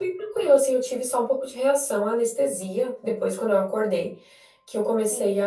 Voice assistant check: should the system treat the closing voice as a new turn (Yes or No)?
No